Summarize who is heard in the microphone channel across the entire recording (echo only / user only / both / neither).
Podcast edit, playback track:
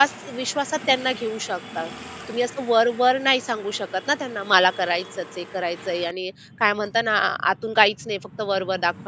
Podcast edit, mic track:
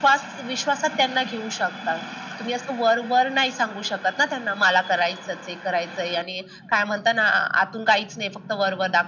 echo only